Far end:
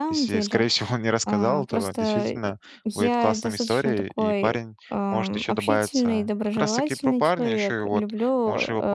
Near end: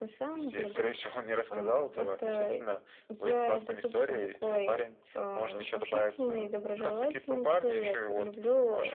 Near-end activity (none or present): none